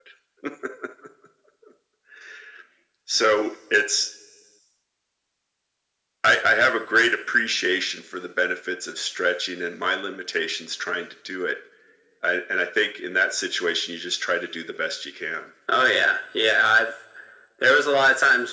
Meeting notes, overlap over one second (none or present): none